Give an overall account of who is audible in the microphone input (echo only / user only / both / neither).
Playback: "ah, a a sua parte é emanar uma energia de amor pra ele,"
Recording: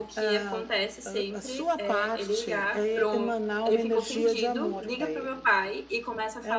both